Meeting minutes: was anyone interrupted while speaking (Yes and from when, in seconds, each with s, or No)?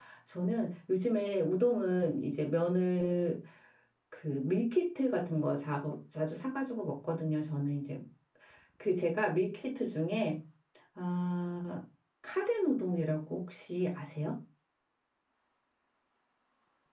No